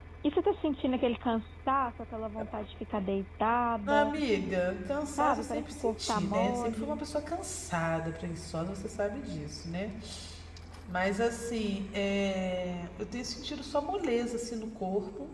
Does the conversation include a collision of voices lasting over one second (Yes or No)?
Yes